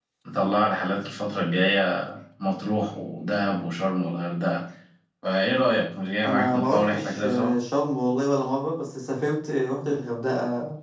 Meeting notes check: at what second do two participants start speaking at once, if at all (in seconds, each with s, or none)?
6.2 s